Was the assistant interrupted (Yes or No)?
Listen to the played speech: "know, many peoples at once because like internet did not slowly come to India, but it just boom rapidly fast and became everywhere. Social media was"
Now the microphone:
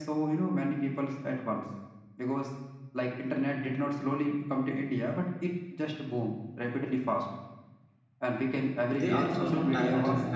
Yes